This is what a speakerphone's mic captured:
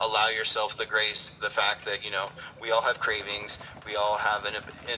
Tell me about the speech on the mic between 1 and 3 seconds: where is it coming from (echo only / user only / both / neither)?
echo only